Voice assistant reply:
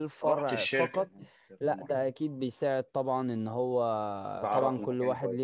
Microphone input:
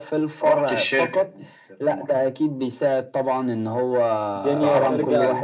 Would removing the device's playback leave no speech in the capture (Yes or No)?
No